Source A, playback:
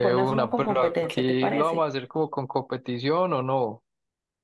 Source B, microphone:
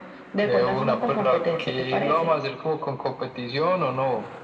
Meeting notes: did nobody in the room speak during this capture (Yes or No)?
Yes